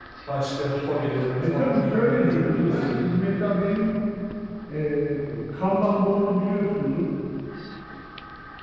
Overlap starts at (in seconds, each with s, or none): 1.4 s